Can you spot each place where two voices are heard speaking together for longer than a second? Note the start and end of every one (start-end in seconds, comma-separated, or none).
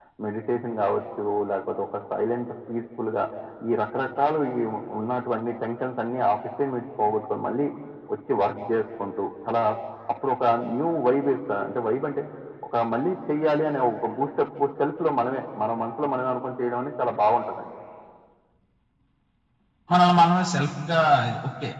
none